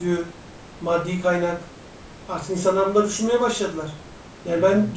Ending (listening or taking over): listening